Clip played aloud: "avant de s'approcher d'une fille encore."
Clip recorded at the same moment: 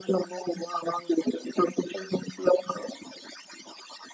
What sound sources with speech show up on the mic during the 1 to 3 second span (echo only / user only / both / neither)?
echo only